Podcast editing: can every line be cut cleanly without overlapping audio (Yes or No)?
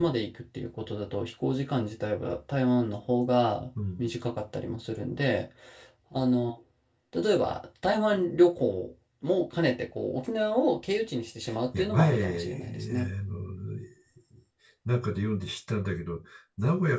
No